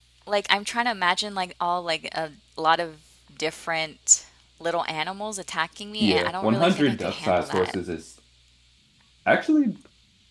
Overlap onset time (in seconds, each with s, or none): 6.0 s